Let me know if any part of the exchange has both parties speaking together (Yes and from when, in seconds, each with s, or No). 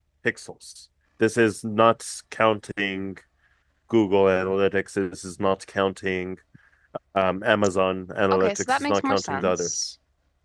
Yes, from 8.3 s